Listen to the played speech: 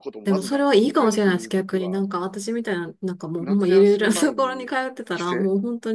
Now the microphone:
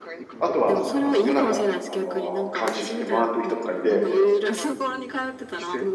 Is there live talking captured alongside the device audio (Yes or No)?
Yes